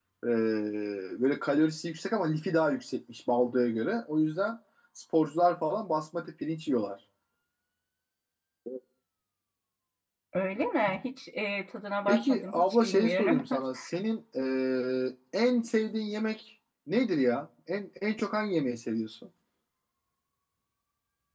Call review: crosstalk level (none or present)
present